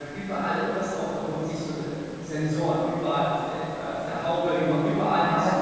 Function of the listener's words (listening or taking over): listening